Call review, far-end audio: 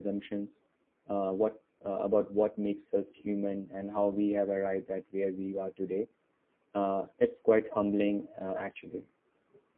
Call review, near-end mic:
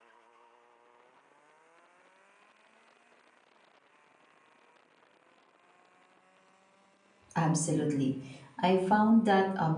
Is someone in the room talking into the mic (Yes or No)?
Yes